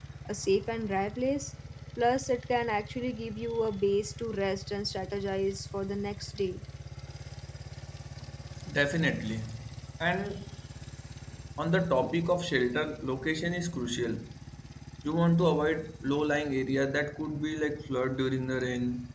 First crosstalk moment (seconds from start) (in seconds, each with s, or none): none